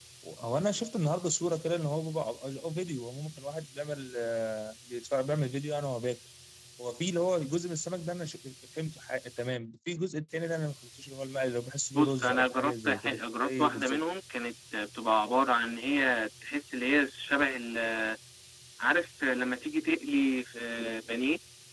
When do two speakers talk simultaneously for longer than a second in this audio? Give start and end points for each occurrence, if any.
11.9-14.0

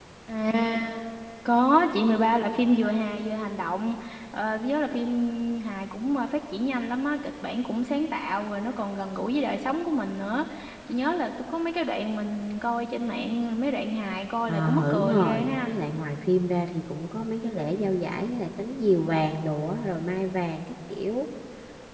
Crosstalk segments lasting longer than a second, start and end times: 14.5-15.7

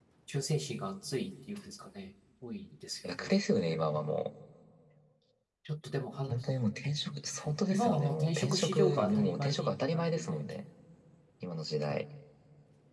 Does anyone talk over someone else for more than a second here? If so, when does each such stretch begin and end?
7.7-10.4

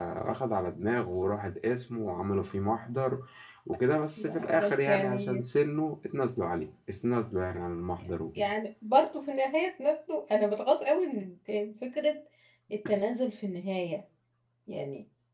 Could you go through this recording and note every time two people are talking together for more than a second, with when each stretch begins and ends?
4.2-5.4

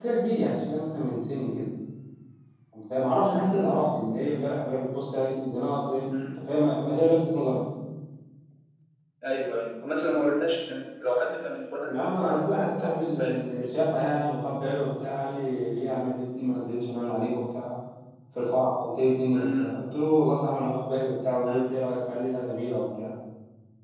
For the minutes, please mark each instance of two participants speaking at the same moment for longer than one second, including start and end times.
11.8-14.1

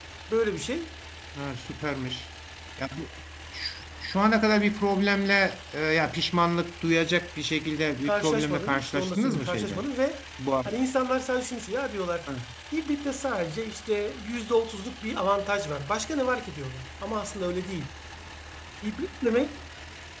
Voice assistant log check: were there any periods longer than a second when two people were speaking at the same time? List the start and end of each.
8.0-9.9

